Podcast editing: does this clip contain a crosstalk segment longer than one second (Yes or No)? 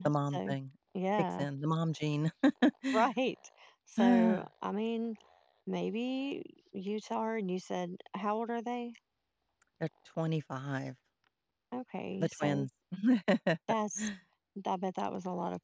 No